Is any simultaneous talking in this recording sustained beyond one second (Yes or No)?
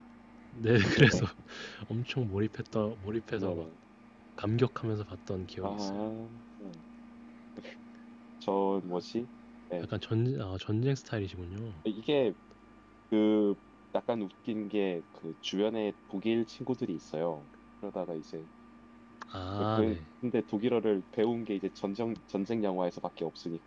No